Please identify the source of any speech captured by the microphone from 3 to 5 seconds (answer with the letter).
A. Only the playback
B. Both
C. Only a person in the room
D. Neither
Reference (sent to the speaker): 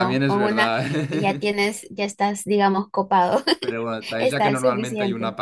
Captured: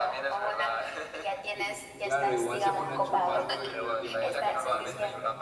B